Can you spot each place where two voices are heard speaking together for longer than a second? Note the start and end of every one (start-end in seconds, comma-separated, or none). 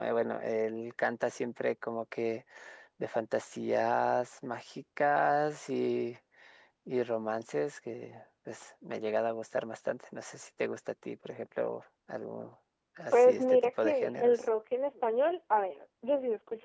13.1-14.4